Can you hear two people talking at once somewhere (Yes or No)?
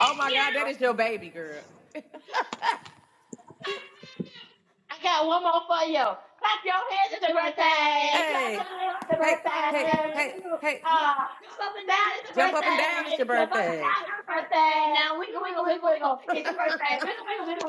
Yes